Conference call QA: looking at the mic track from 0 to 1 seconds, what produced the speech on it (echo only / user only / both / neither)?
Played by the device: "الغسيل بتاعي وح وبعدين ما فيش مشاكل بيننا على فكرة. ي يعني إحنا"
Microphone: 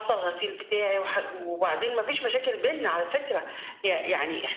echo only